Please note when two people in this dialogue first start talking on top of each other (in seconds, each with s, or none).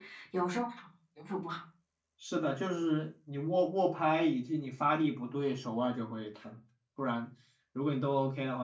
none